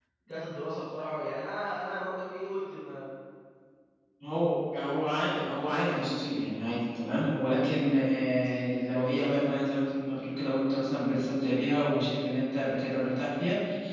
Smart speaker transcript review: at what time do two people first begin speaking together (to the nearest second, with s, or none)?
none